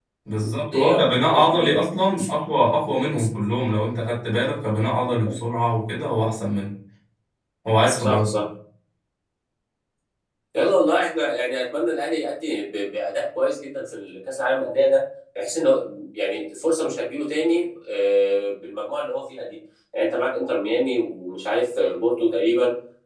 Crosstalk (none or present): present